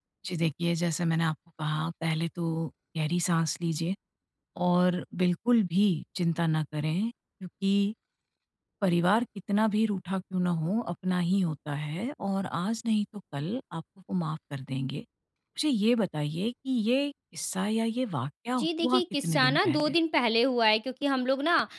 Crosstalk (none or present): present